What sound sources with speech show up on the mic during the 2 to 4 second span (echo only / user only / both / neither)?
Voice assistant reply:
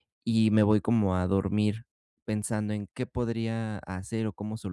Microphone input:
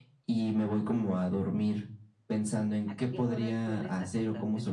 both